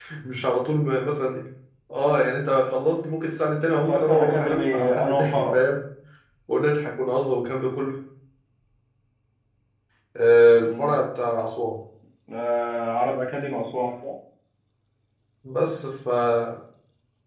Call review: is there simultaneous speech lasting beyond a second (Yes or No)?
Yes